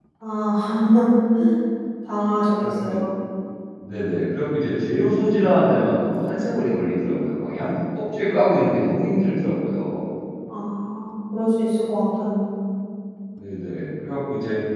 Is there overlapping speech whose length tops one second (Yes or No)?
No